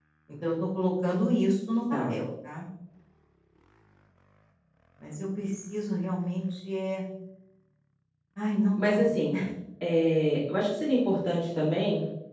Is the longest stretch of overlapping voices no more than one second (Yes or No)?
Yes